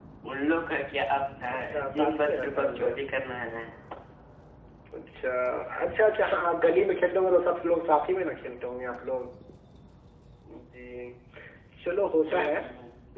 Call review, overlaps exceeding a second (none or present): present